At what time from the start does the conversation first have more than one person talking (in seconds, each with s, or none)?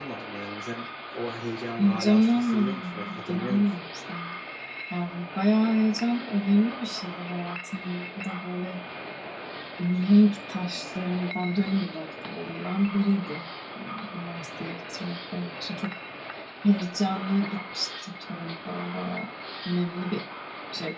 1.8 s